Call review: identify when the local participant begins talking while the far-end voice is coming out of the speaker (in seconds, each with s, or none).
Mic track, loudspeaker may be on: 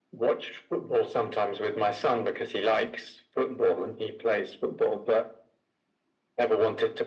none